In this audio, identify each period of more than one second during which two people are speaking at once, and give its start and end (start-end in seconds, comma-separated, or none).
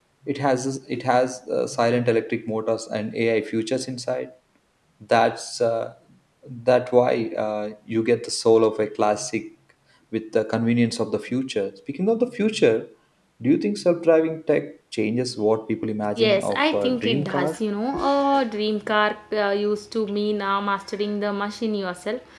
16.2-17.6